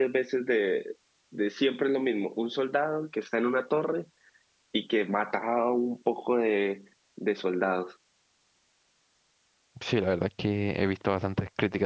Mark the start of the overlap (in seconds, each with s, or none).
none